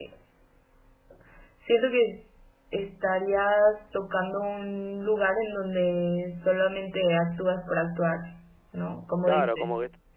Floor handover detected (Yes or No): Yes